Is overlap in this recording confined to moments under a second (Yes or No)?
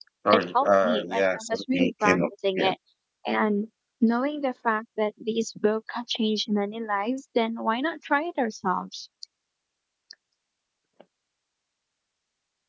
No